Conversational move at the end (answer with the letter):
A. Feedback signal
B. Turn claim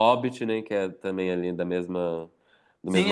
B